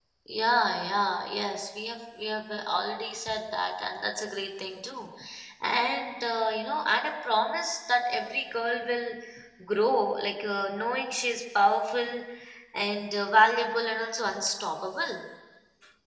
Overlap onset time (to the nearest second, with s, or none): none